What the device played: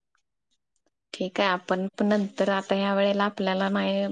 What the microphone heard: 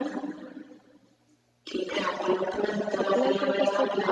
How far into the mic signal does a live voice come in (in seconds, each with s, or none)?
3.0 s